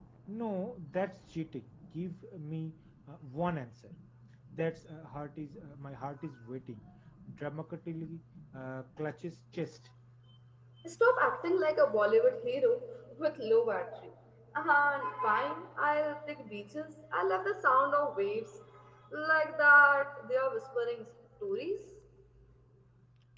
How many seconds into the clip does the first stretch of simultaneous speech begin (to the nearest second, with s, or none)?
none